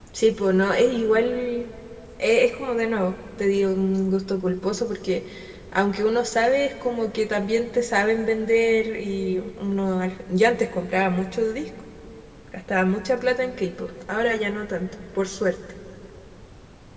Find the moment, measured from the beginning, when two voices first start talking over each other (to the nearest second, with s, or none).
none